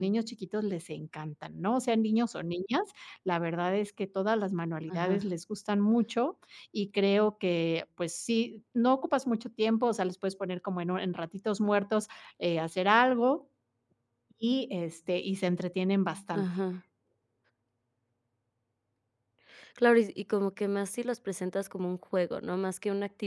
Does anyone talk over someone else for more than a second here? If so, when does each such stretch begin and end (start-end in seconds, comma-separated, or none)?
none